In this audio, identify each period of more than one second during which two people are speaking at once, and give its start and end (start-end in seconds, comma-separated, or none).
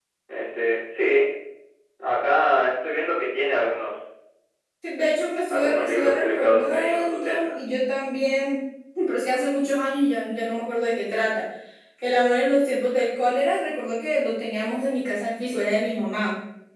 5.5-7.5